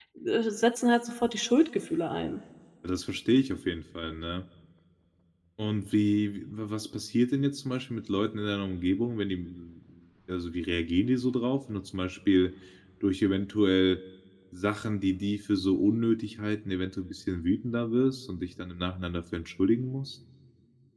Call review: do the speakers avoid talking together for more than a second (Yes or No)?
Yes